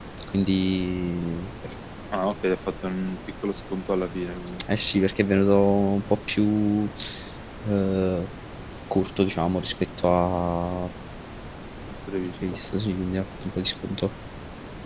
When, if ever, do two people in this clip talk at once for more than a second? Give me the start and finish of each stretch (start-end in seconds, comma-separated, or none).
none